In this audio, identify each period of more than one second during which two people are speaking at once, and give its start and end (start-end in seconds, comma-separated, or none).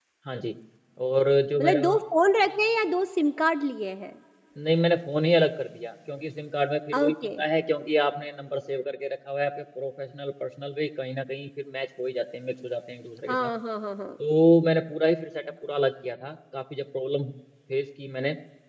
none